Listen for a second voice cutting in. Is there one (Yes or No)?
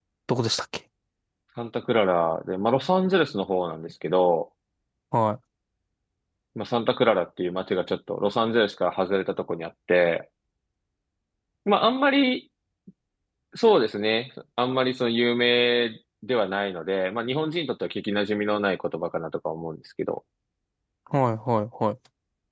No